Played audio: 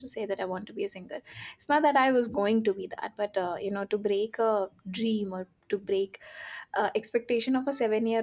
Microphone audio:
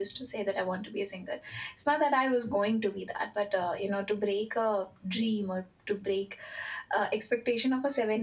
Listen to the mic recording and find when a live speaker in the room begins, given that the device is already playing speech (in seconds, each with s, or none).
none